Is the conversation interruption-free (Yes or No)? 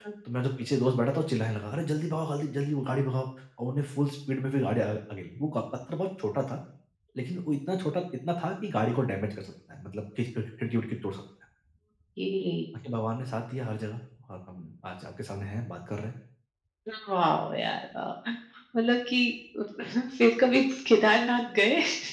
Yes